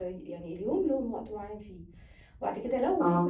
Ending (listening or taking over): listening